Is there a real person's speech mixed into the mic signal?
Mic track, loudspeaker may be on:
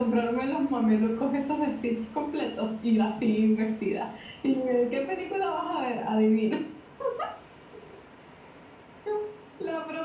No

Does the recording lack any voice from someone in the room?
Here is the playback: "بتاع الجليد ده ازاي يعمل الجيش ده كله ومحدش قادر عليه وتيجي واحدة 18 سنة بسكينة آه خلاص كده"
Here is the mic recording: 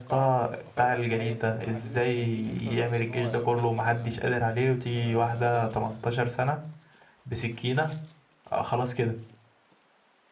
No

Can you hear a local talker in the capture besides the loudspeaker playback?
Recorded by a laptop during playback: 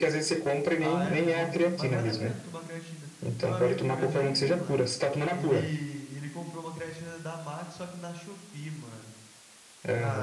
Yes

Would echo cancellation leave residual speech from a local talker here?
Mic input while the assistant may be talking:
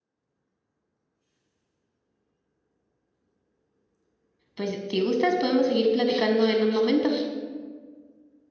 Yes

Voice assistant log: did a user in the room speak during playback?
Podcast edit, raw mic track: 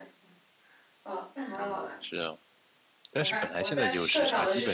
Yes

